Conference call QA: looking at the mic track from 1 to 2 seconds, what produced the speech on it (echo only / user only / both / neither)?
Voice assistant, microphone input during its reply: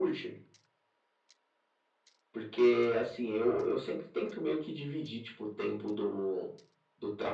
neither